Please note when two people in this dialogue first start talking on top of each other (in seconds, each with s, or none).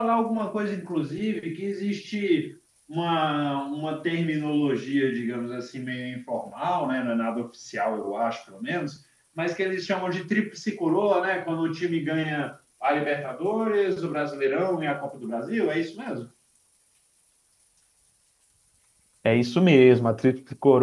none